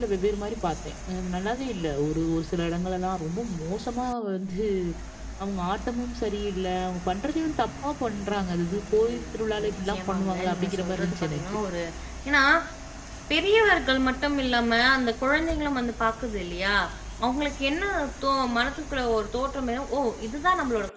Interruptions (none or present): present